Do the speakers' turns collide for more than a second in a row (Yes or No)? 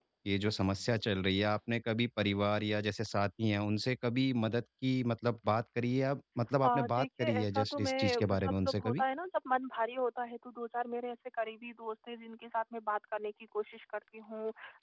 Yes